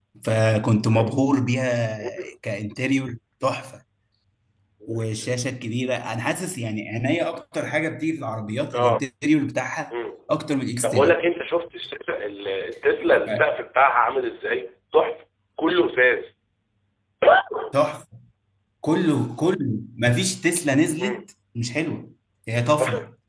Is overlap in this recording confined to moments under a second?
Yes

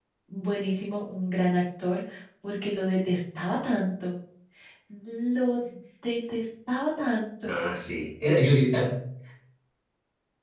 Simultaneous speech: No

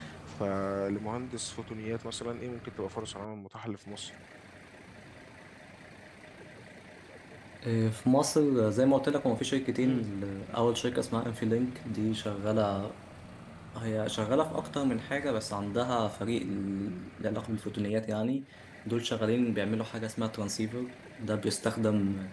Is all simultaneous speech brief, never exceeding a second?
Yes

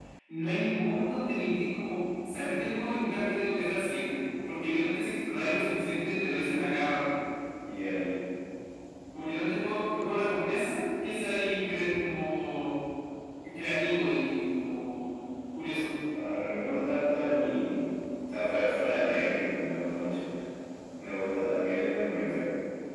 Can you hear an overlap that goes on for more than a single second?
No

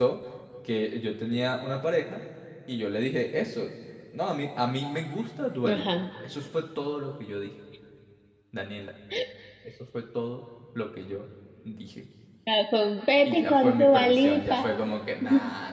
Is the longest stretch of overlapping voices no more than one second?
No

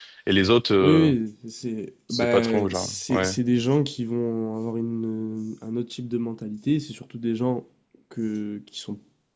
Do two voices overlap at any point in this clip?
Yes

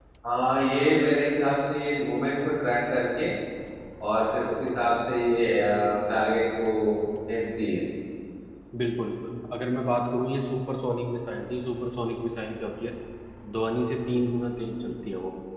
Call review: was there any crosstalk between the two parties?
No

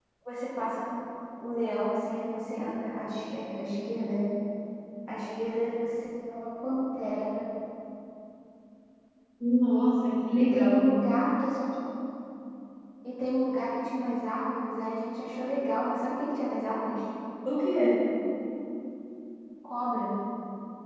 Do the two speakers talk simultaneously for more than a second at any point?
No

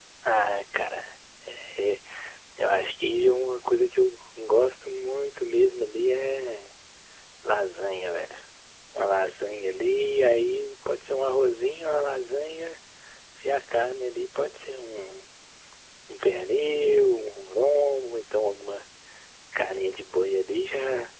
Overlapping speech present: No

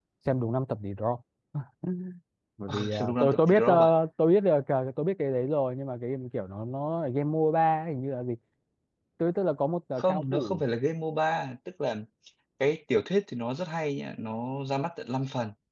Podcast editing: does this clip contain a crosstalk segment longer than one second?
Yes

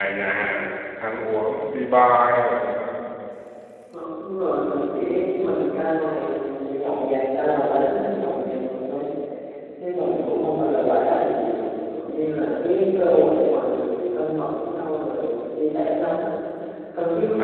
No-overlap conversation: Yes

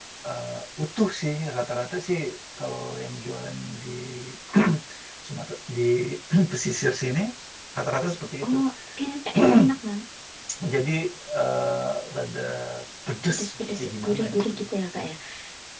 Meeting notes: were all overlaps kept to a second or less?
No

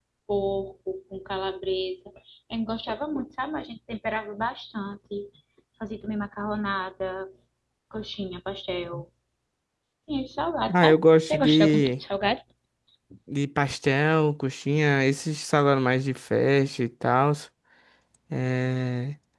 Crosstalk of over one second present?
Yes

